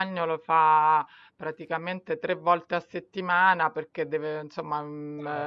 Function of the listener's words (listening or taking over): listening